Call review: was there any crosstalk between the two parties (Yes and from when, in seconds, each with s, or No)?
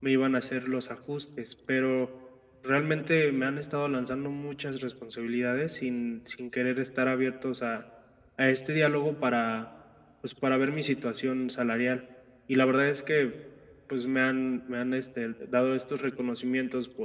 No